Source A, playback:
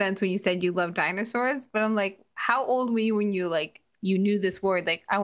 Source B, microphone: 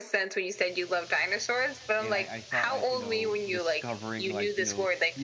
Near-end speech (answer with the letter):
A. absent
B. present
B